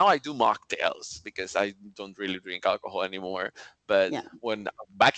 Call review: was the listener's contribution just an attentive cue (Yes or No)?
Yes